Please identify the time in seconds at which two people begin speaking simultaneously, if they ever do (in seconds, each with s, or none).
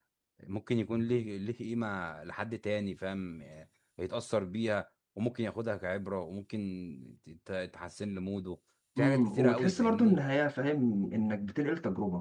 9.0 s